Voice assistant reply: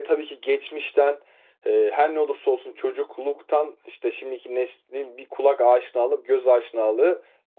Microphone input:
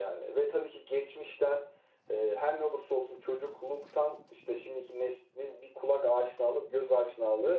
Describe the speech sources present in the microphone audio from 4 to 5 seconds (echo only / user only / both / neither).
echo only